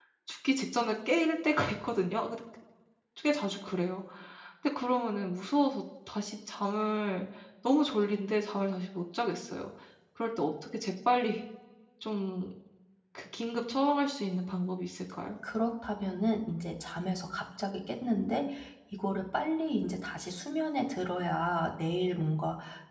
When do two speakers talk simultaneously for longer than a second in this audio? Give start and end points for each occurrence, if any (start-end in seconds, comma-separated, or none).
none